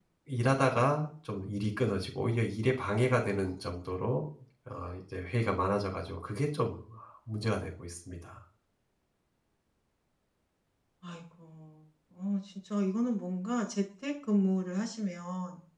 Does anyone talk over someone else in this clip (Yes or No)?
No